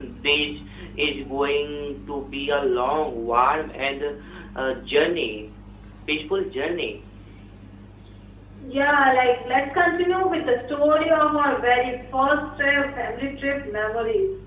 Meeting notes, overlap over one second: none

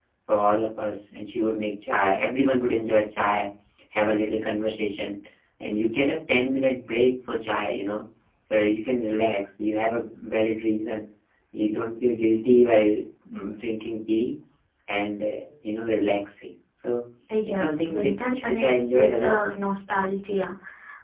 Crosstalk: present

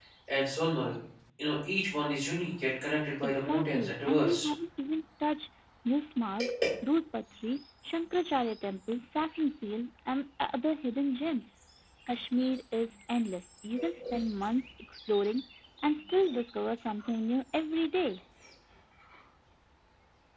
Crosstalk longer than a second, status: present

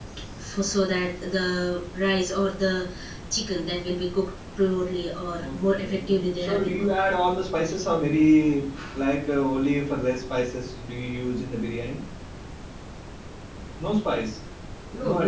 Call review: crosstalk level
present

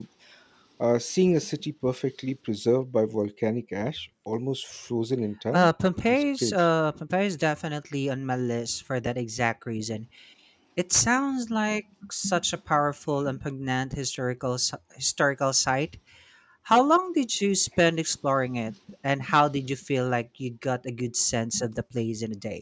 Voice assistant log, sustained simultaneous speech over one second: none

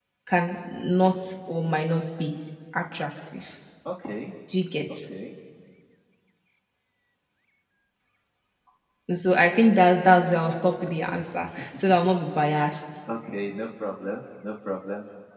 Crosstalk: none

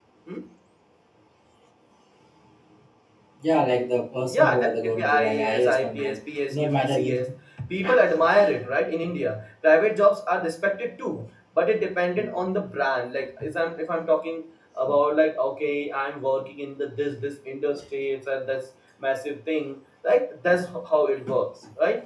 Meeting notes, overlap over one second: present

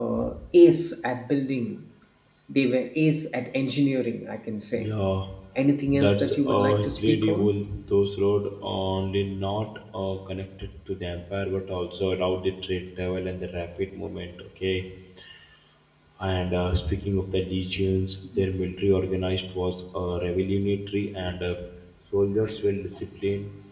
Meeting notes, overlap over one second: present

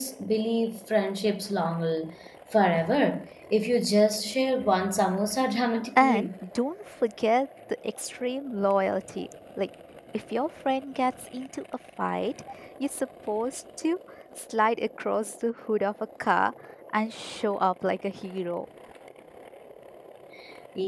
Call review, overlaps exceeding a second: none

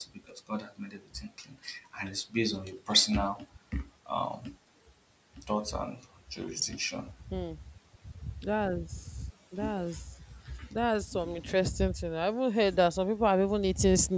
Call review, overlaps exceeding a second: none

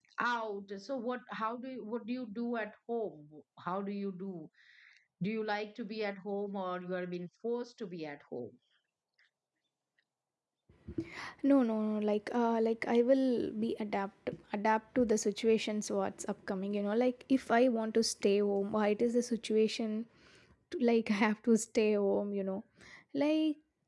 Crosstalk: none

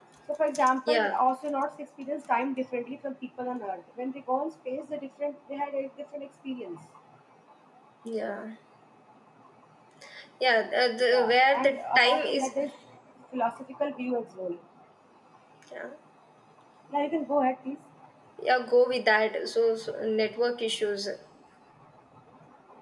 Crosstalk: present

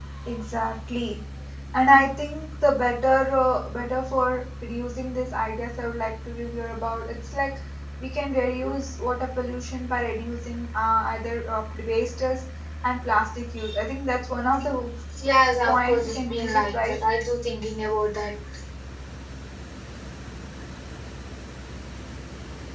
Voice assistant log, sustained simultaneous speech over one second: present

